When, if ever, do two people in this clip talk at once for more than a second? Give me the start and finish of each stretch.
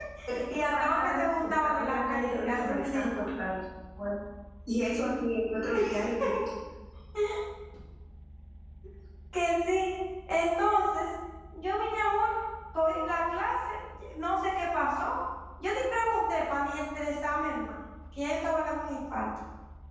0.6-3.3

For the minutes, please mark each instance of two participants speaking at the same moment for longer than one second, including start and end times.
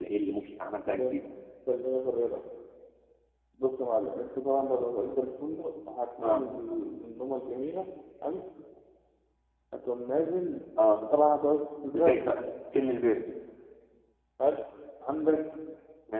none

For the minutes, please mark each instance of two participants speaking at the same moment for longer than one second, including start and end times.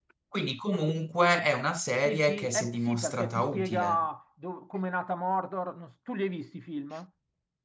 2.0-4.1

